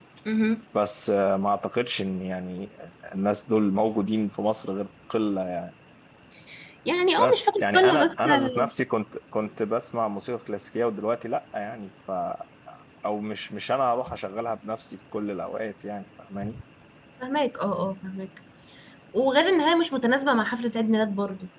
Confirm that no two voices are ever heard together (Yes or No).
No